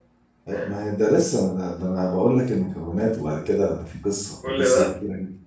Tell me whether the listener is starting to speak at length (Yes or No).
No